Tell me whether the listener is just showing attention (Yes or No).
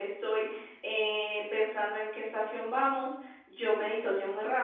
Yes